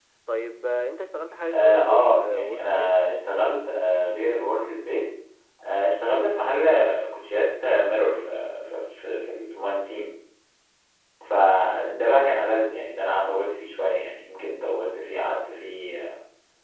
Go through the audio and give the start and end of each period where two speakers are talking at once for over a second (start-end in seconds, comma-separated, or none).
1.5-3.0